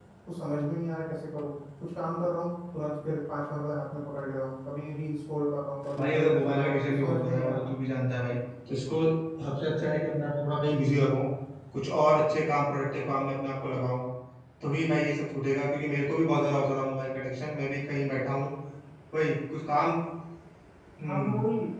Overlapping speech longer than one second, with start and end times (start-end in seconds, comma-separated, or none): 6.0-7.7